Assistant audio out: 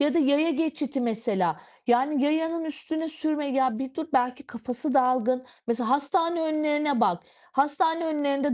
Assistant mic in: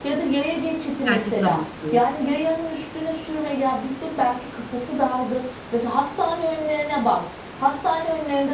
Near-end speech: present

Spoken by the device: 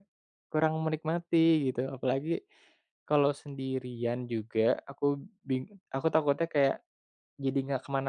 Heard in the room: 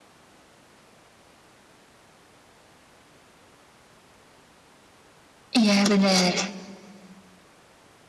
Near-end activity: present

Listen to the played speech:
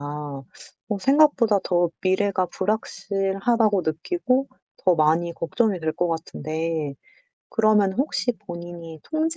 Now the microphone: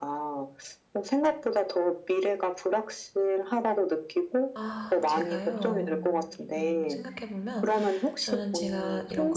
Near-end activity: present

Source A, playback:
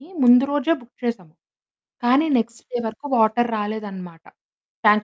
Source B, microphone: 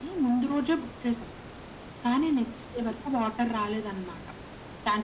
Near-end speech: none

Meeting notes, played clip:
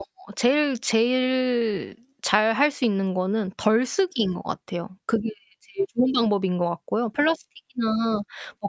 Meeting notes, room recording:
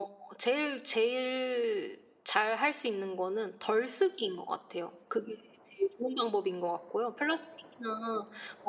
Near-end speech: none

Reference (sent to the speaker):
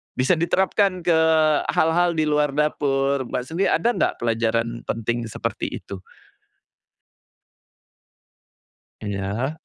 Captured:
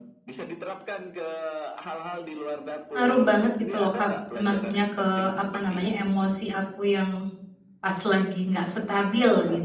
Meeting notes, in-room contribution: present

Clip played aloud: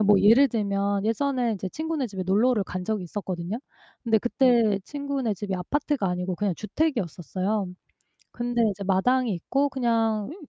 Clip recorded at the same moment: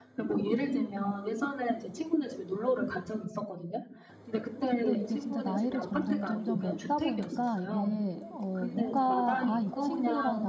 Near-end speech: present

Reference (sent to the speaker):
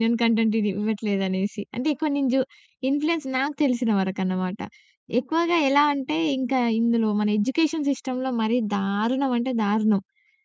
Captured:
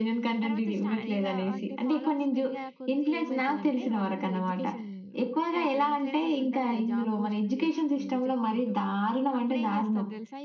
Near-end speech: present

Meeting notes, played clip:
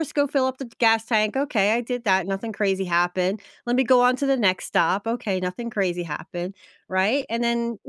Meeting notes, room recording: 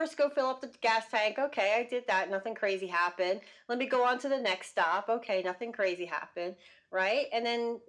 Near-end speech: none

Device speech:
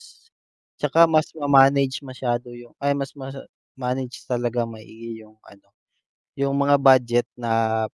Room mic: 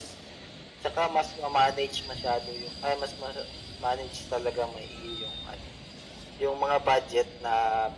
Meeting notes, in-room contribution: none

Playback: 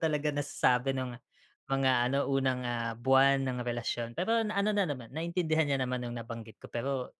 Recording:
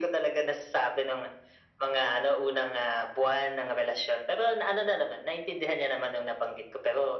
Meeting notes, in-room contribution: none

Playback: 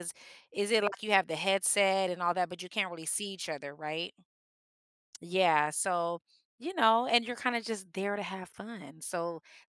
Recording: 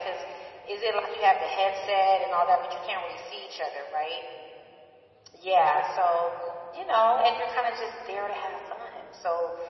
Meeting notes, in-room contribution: none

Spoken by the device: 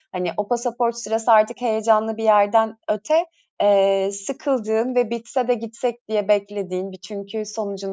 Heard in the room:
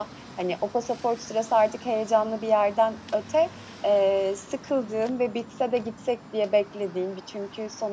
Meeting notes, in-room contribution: none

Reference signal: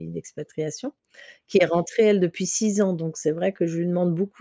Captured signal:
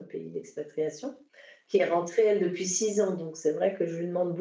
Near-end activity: none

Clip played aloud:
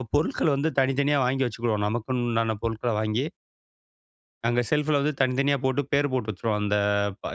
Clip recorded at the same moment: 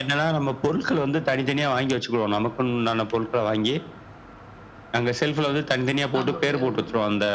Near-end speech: present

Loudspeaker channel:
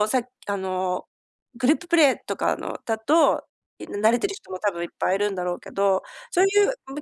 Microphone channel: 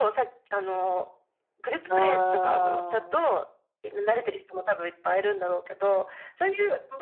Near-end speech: present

